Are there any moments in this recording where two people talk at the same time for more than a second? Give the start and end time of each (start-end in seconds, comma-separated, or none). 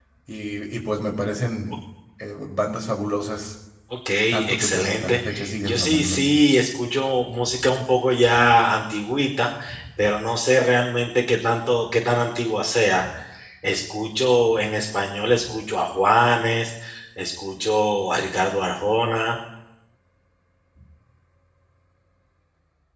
4.5-6.2